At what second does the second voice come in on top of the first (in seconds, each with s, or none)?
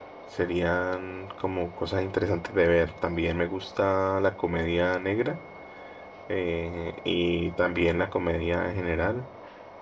none